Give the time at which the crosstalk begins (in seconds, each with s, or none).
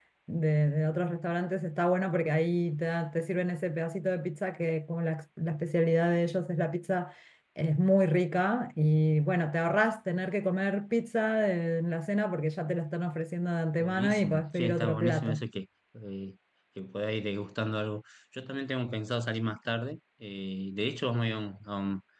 13.8 s